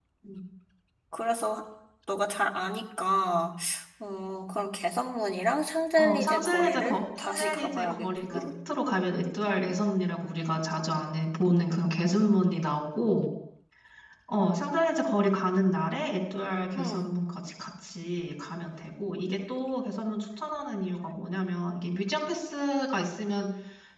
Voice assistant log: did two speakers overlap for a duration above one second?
Yes, from 6.0 s

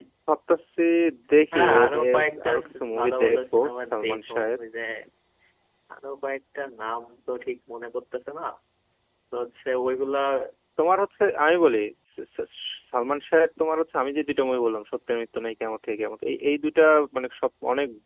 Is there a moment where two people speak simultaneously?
Yes, from 1.5 s

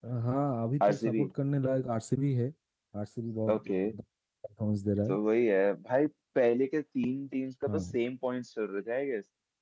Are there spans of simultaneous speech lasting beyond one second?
No

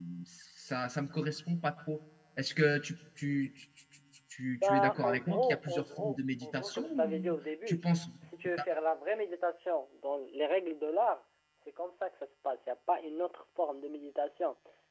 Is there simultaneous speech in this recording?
Yes, from 4.6 s

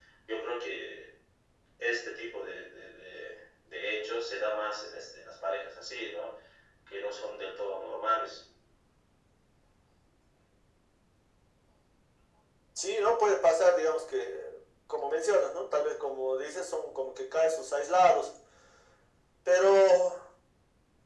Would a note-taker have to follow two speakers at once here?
No

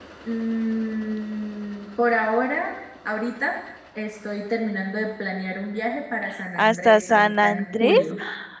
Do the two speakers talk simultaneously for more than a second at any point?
Yes, from 6.6 s

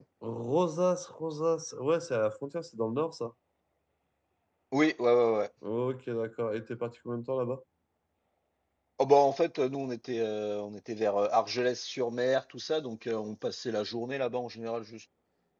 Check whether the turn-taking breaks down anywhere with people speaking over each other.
No

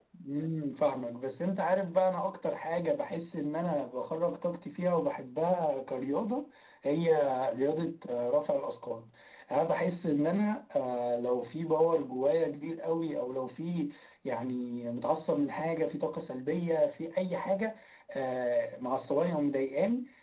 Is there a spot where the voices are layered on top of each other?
No

